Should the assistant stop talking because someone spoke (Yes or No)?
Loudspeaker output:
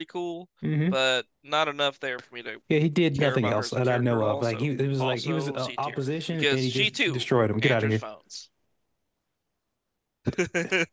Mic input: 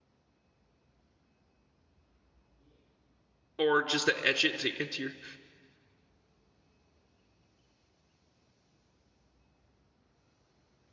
Yes